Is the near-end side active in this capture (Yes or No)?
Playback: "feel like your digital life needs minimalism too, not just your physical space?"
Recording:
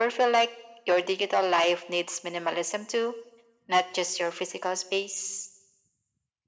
No